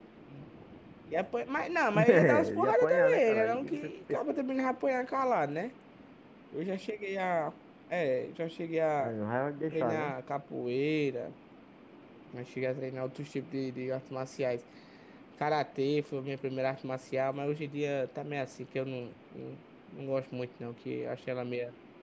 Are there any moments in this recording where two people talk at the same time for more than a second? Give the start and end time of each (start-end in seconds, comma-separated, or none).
2.1-3.9